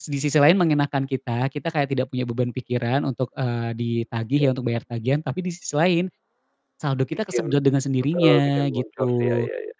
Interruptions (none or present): present